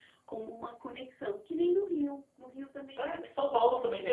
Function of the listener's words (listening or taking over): taking over